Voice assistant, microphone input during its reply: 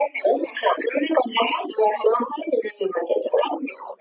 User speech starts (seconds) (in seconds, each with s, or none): none